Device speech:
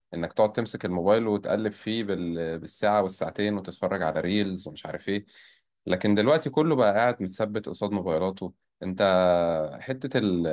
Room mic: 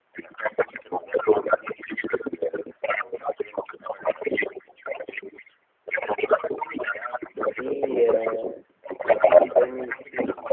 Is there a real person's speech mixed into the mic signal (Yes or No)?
Yes